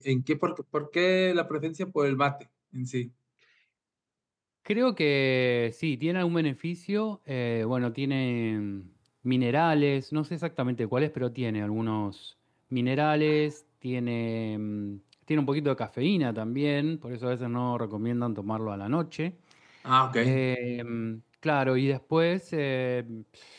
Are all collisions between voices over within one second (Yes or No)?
Yes